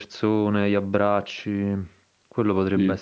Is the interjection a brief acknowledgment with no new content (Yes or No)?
Yes